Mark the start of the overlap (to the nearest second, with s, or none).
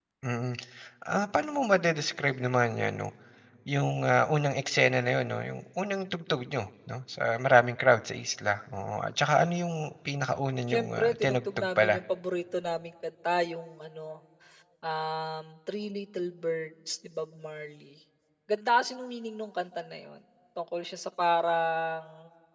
11 s